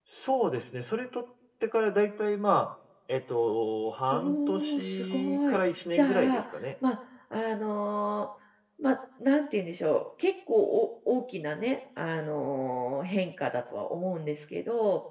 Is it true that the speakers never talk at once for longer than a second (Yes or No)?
No